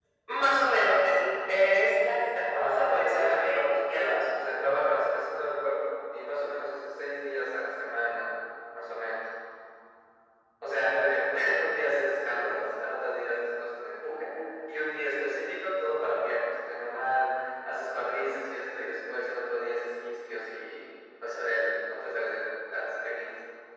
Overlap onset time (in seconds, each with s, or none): 2.5 s